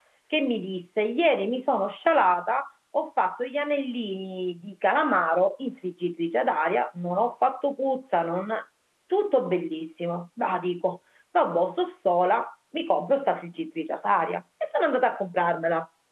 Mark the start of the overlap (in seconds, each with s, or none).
none